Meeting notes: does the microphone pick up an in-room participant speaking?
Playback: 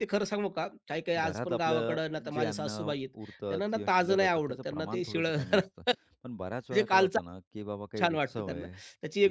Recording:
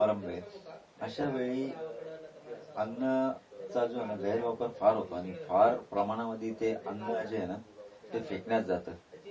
Yes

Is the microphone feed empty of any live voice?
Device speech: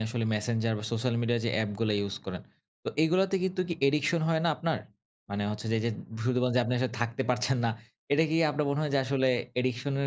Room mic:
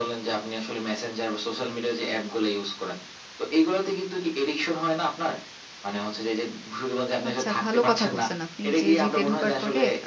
No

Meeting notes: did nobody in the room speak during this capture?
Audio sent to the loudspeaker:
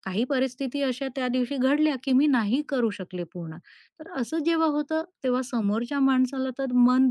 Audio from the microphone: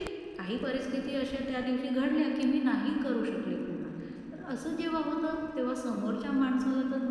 Yes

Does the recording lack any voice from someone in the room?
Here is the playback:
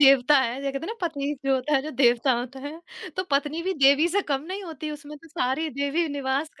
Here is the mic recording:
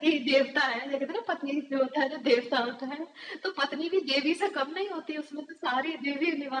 Yes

